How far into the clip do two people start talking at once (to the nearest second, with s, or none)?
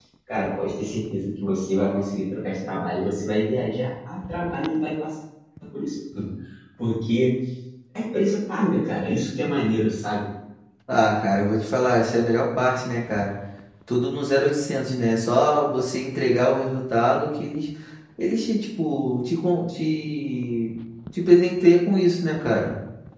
none